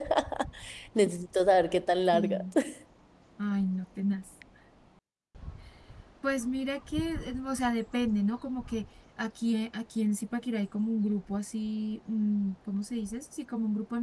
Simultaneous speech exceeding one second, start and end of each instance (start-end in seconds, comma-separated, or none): none